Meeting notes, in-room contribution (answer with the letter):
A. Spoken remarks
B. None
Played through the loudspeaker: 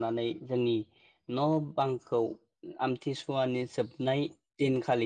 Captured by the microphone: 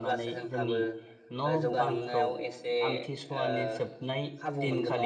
A